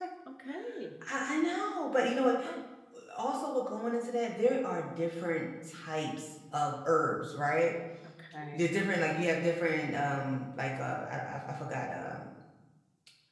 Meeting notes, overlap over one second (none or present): none